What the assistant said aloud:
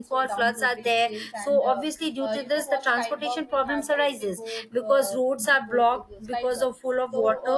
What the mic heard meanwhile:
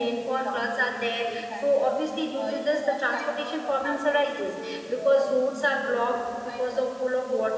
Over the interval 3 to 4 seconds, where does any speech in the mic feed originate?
echo only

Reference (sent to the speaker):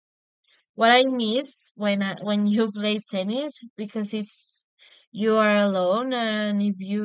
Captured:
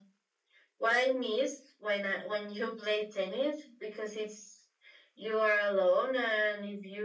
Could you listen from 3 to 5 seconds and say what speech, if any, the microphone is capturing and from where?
echo only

